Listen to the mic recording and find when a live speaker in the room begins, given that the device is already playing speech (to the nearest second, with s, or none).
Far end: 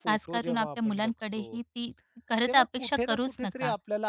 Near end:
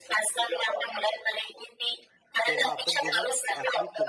2 s